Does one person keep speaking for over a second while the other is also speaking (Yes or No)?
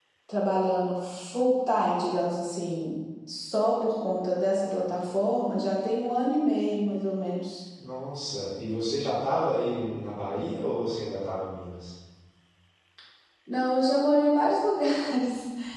No